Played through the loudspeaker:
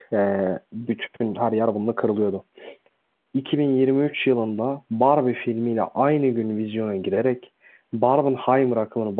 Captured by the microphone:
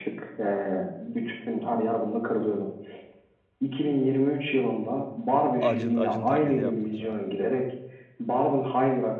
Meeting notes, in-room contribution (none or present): present